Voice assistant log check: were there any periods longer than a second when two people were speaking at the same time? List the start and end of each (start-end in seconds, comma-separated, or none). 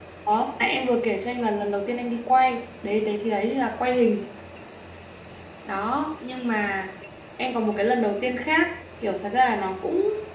none